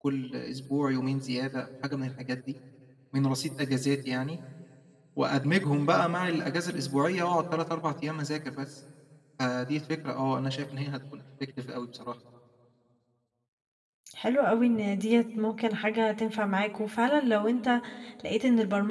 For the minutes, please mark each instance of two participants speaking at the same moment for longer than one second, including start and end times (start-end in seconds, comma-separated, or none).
none